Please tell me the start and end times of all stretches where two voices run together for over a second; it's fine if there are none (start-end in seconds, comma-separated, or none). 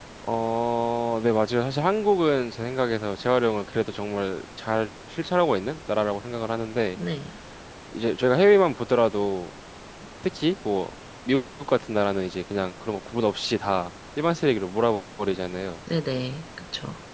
none